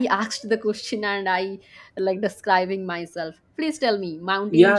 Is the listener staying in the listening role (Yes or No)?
No